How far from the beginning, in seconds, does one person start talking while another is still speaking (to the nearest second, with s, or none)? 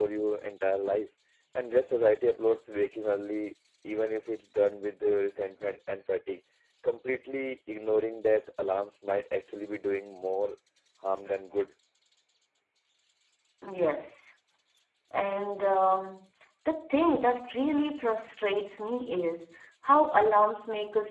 none